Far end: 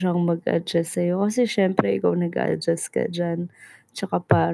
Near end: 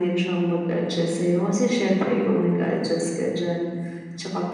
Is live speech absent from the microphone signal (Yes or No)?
Yes